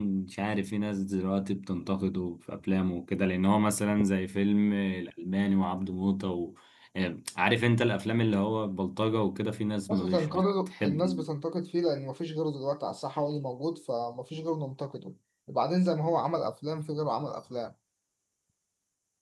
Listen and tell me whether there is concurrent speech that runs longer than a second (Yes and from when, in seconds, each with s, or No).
Yes, from 9.9 s